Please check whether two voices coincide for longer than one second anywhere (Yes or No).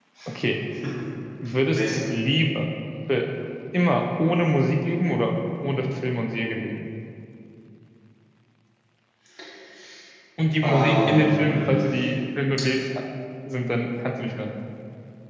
Yes